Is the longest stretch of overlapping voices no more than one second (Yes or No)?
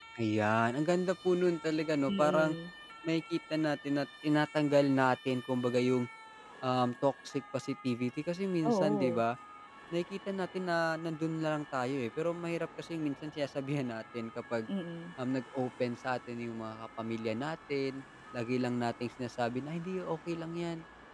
Yes